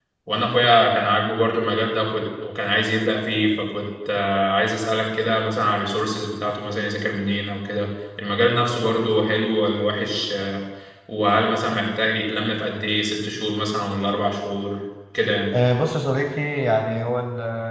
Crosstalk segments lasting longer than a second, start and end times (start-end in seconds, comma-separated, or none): none